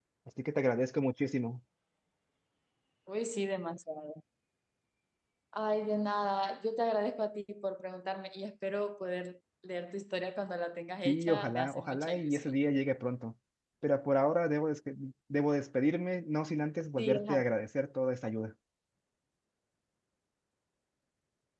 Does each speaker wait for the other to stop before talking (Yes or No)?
No